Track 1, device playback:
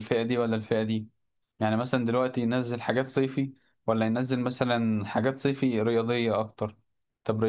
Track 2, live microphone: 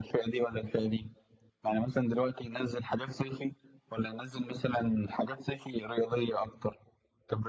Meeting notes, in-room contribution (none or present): none